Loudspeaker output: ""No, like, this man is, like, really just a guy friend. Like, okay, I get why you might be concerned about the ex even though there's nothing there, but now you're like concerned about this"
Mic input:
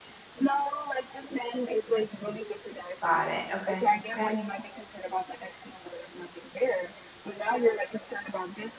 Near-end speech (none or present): present